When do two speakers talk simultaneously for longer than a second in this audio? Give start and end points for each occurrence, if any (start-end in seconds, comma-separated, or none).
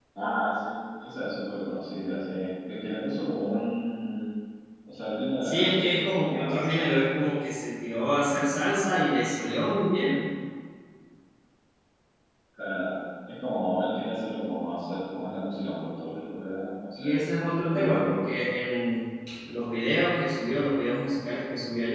5.4-6.7, 17.0-18.3